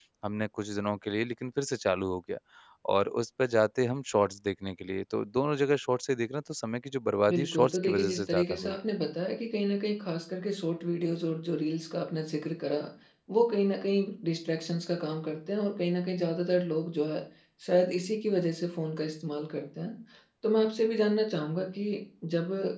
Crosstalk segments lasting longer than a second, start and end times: 7.3-8.8

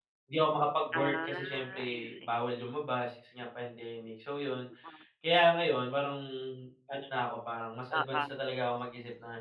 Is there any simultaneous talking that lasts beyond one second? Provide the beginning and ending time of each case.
0.9-2.5

